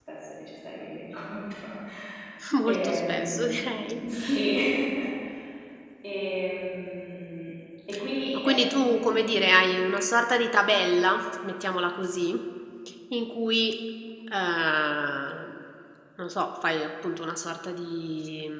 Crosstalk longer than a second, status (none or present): present